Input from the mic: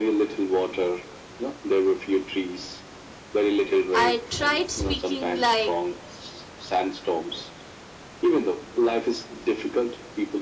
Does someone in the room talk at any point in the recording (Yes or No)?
Yes